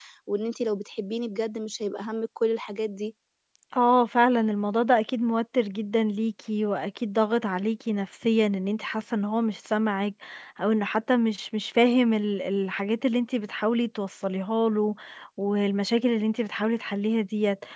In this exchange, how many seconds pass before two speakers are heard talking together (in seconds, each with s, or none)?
none